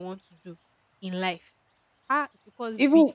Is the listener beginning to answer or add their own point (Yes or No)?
Yes